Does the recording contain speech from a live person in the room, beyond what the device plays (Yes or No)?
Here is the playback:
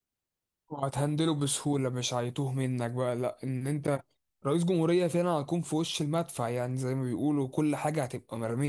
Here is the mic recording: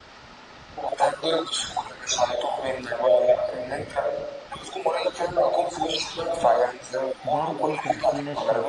Yes